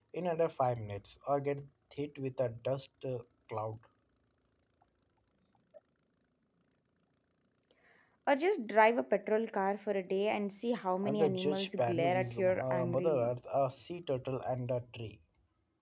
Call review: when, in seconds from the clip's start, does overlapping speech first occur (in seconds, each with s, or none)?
11.0 s